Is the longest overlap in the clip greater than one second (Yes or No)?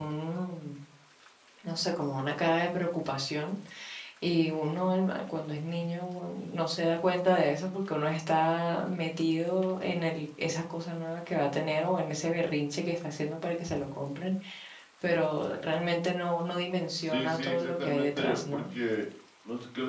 Yes